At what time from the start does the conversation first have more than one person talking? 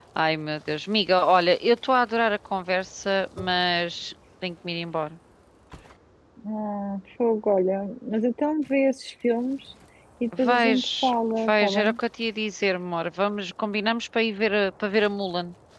10.4 s

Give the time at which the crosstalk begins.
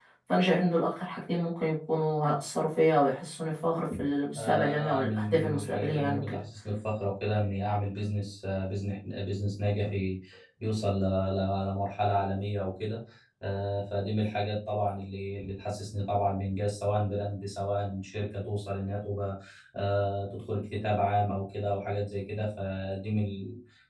4.3 s

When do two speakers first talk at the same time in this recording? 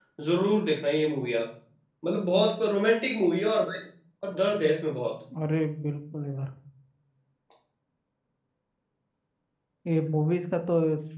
none

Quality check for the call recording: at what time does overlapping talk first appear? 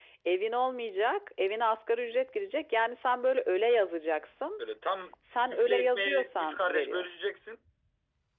5.5 s

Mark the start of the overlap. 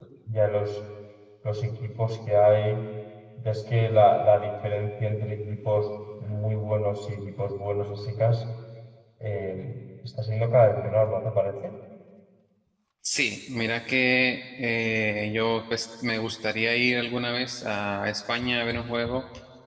none

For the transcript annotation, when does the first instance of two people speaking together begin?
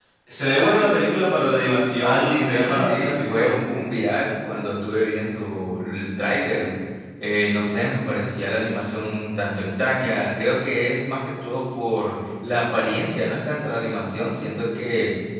2.0 s

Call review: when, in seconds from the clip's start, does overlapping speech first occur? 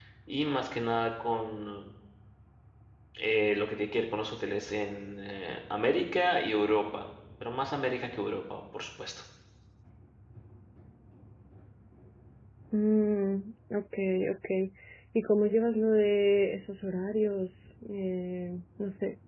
none

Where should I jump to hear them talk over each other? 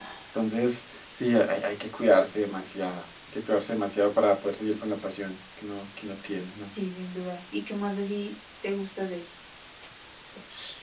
none

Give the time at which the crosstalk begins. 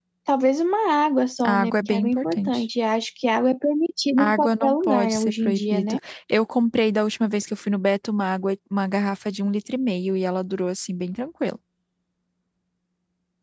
1.4 s

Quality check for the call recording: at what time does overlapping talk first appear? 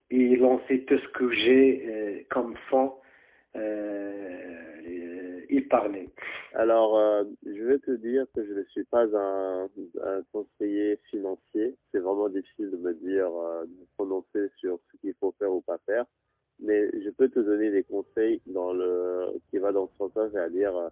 none

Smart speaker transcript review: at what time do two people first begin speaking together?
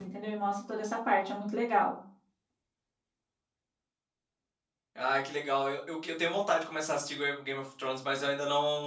none

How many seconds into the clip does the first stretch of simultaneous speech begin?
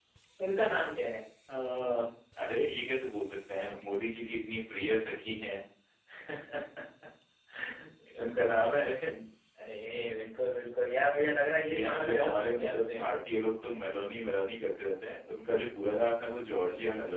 11.6 s

